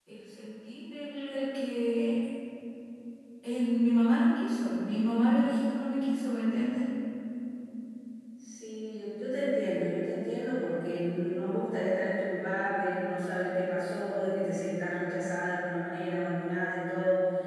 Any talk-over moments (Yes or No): No